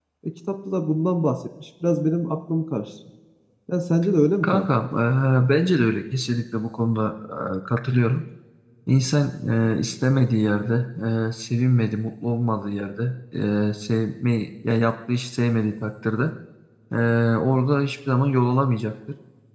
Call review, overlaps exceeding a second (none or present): none